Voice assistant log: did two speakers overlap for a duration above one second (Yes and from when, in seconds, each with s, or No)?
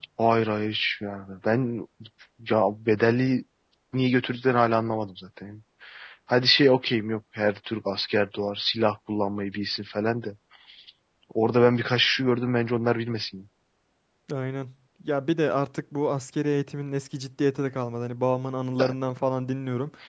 No